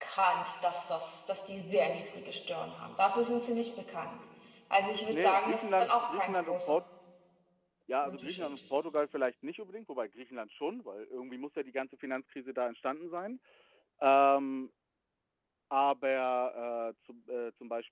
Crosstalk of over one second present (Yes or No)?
Yes